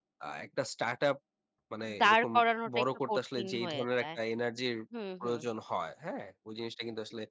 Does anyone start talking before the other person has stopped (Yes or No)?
Yes